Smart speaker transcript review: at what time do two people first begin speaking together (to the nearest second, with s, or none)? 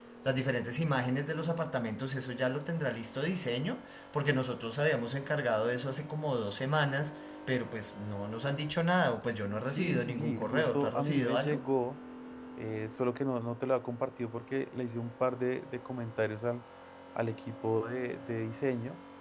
10 s